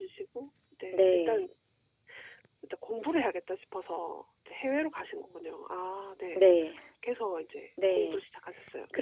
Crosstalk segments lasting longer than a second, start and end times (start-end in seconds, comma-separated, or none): none